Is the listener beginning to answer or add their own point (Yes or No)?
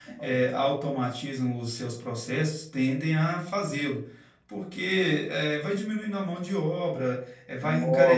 No